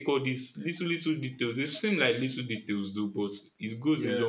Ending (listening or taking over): listening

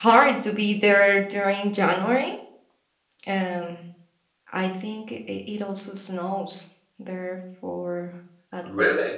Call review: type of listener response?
listening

